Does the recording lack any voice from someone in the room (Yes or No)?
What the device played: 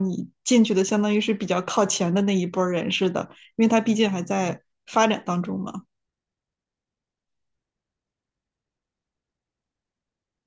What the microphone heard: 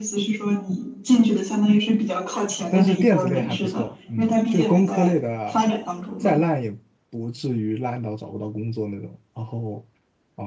No